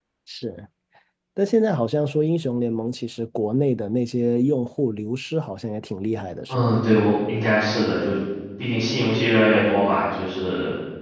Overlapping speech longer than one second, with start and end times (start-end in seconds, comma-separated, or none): none